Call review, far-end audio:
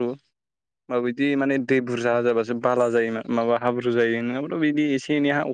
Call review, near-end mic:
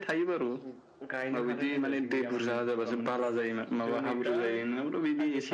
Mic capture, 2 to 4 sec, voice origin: both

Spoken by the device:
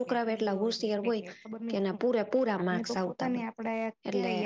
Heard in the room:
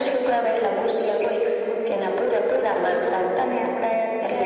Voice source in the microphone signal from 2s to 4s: echo only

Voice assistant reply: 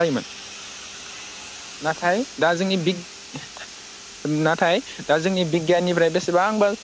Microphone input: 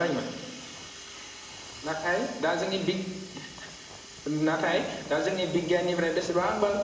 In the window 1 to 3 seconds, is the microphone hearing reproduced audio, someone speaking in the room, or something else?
echo only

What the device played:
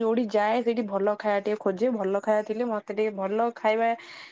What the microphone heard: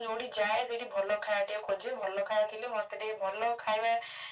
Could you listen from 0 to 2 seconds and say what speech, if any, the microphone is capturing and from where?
echo only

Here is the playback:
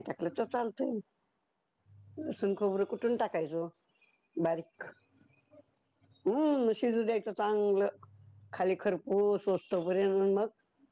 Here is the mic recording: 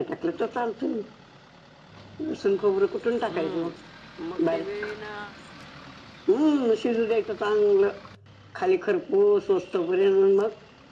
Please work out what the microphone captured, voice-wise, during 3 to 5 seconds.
both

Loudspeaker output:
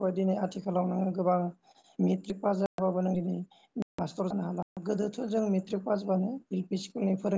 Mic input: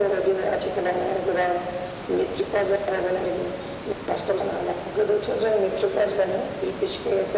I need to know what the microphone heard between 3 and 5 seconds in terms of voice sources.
echo only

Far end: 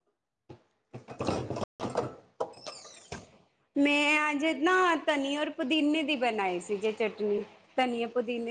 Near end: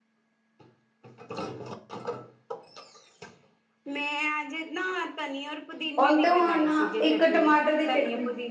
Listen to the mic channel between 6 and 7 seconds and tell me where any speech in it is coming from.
both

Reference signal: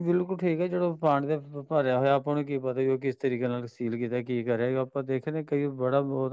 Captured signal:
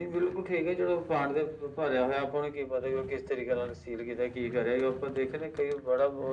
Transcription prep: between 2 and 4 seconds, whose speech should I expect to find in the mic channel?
echo only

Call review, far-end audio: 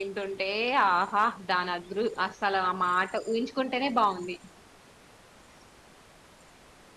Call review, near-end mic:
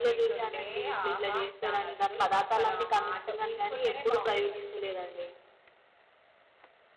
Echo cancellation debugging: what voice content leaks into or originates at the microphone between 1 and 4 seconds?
both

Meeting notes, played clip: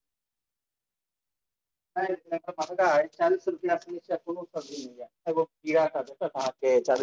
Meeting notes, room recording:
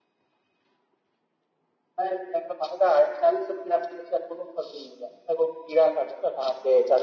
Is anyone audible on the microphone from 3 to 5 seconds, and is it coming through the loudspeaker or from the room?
echo only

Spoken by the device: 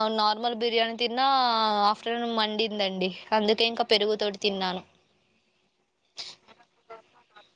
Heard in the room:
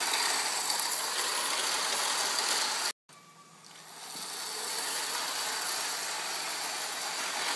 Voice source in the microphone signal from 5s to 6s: neither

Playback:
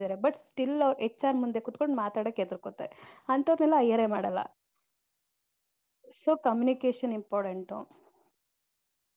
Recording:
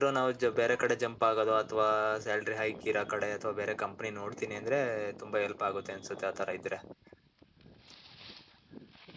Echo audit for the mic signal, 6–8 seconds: user only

